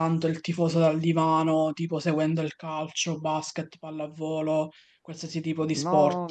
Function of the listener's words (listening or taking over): taking over